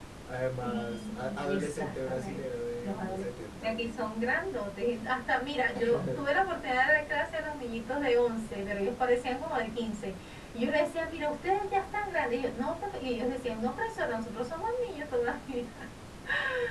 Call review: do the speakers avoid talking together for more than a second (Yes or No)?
No